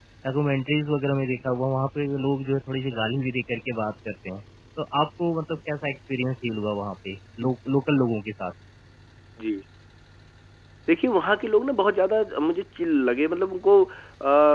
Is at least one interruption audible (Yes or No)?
No